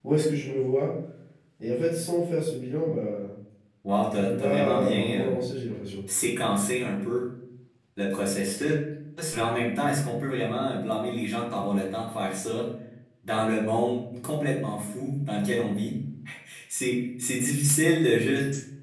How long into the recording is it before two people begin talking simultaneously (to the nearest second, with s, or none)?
4 s